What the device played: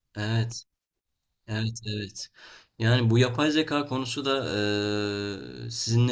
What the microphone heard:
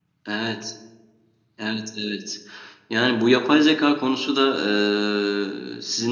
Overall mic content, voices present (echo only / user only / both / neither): echo only